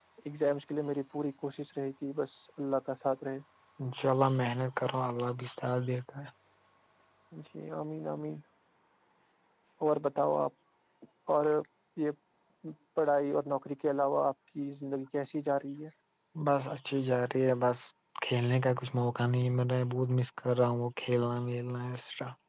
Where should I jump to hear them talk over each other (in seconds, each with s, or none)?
none